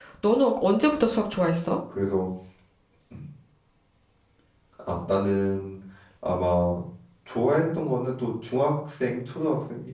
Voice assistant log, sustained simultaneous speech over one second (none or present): none